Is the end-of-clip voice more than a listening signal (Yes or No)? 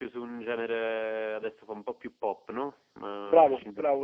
Yes